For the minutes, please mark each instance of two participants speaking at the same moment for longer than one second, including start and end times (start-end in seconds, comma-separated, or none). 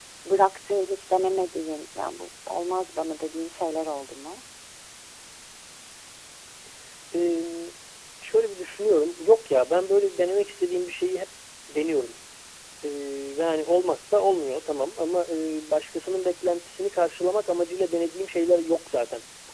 none